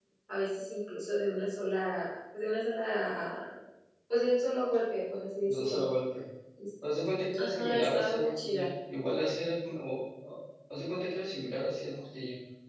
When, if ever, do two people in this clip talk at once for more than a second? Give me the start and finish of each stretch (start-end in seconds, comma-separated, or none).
7.4-8.7